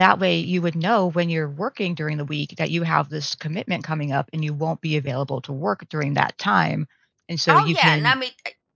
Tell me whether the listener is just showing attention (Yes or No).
No